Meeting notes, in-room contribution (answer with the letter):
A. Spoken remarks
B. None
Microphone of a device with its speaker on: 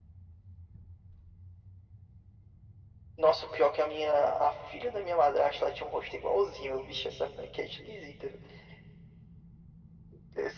B